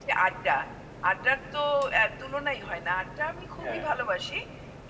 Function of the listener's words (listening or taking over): listening